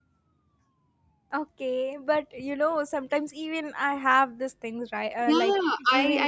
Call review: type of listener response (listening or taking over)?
taking over